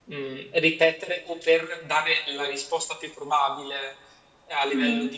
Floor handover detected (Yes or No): No